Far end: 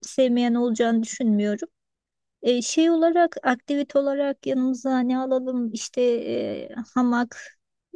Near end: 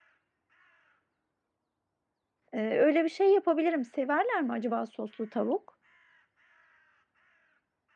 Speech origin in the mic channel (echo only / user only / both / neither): user only